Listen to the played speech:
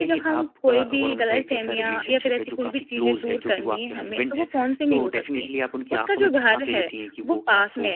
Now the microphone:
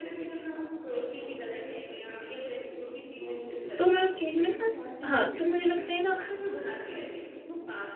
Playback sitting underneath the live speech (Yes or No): Yes